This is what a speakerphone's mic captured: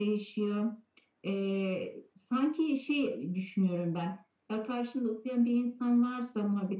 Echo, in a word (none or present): present